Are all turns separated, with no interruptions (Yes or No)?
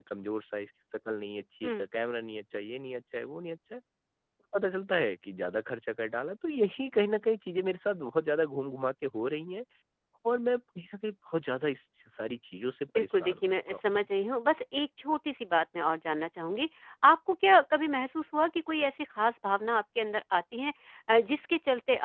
No